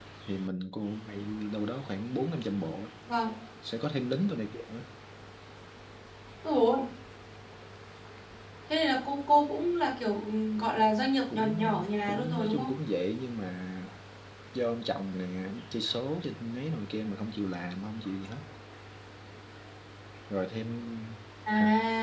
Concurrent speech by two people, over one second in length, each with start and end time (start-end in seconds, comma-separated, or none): 11.3-12.7